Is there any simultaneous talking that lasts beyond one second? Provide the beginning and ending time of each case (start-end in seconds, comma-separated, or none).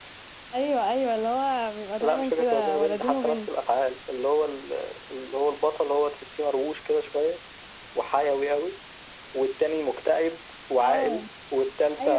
2.0-3.5